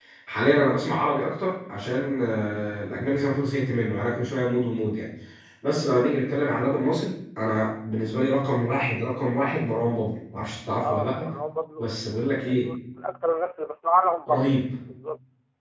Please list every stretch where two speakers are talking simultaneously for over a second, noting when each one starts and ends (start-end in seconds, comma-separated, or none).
none